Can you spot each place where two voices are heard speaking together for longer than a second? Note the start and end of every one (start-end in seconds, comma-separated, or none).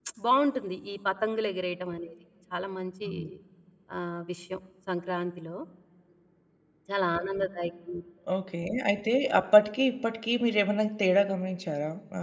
none